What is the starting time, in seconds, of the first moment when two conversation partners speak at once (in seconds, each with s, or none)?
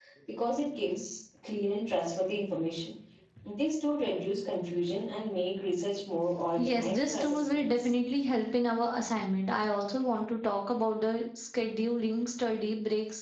6.6 s